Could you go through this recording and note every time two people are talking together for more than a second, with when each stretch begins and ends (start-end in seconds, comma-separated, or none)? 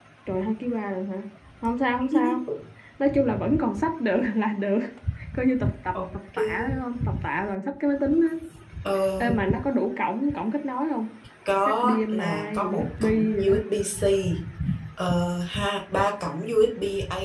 11.7-13.5